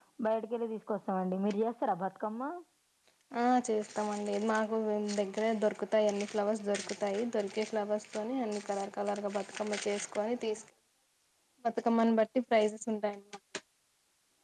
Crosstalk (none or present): none